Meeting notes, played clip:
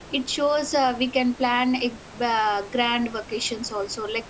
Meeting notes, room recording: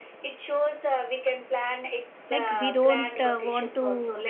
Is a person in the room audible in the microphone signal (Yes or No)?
Yes